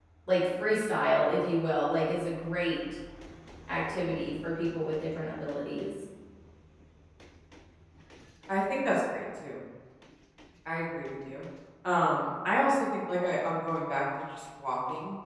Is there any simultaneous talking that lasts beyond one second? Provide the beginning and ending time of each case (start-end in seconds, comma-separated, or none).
none